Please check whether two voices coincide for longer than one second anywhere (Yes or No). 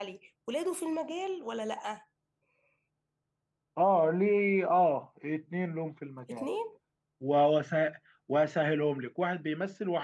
No